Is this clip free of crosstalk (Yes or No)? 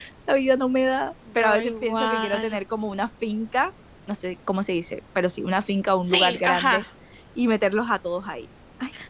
No